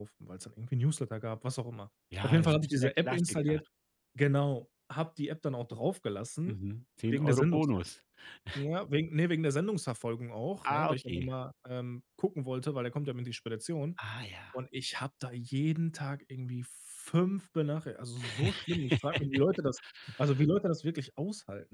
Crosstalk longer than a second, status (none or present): present